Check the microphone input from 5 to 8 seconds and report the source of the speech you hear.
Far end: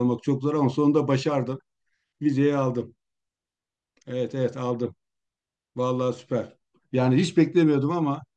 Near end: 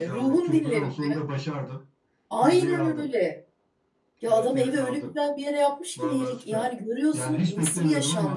both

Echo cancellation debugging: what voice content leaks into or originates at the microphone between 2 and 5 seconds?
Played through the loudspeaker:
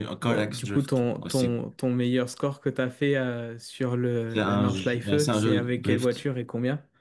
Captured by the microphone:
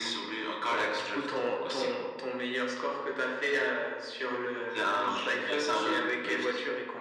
echo only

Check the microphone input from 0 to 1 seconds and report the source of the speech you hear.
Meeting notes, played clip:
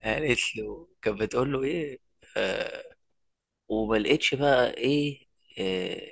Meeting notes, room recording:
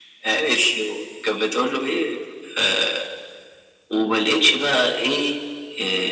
echo only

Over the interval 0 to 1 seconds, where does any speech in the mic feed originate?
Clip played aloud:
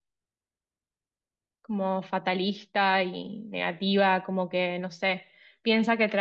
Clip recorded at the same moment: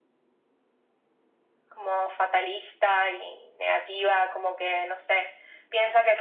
neither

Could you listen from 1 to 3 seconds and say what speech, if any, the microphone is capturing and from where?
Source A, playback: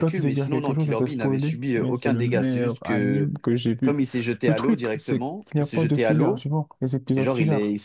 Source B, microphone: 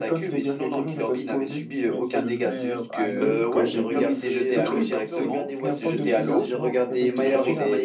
echo only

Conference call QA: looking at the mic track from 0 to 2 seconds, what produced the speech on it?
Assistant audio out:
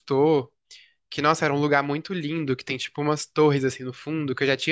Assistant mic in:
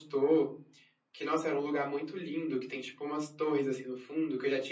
echo only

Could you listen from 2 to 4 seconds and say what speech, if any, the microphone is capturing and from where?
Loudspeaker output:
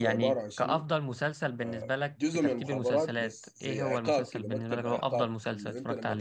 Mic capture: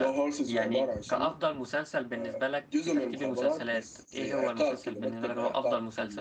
echo only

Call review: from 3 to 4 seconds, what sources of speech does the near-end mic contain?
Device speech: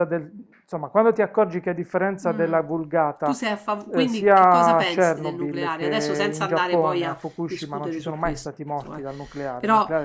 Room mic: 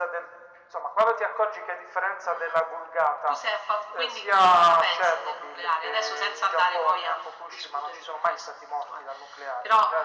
echo only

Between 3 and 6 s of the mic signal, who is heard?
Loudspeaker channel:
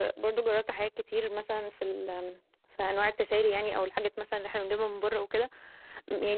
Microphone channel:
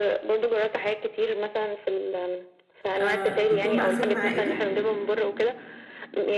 both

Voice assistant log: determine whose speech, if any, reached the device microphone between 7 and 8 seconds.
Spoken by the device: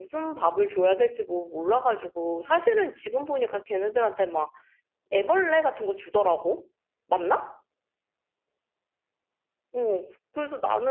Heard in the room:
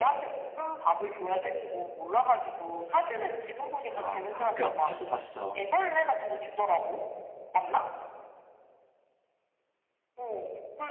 echo only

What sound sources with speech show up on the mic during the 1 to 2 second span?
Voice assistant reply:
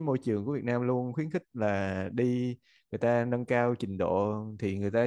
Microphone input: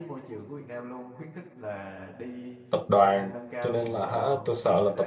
echo only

